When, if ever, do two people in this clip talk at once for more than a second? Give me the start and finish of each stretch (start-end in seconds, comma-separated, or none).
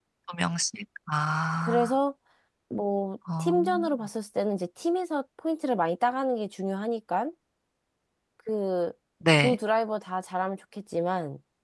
none